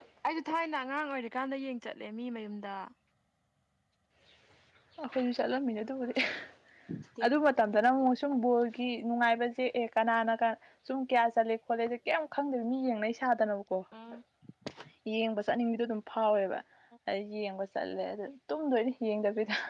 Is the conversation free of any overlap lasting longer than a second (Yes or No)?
Yes